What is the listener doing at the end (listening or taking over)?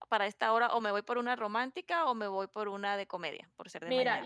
taking over